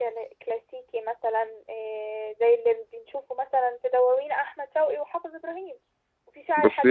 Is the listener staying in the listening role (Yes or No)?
Yes